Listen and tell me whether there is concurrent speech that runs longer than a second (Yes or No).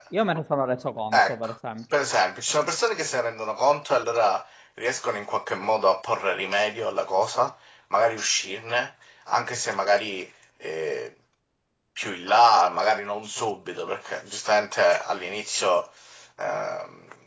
No